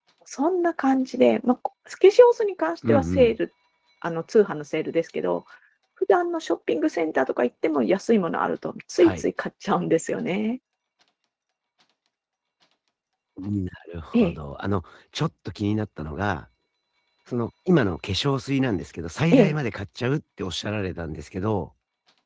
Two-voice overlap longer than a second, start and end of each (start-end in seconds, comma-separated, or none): none